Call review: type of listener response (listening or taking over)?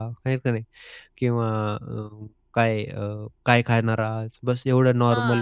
taking over